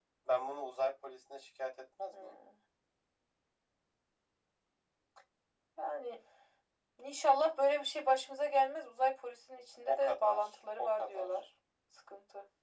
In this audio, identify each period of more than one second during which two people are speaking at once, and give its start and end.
9.9-11.3

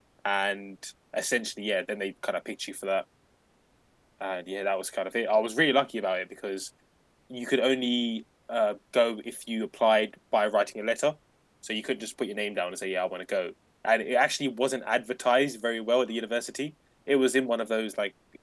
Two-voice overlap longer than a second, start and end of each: none

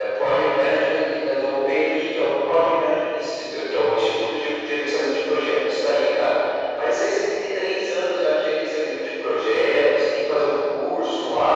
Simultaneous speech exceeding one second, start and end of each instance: none

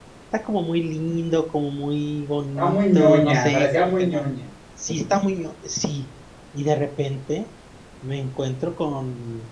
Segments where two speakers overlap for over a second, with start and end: 2.5-4.3

